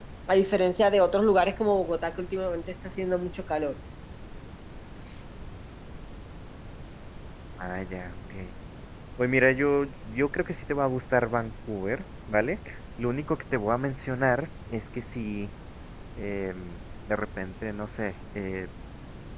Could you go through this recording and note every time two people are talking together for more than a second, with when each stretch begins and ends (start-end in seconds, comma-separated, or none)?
none